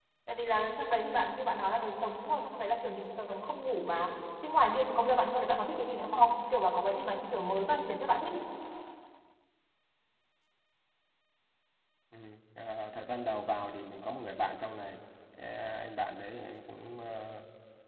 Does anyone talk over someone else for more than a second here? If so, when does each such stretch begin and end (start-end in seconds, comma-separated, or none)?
none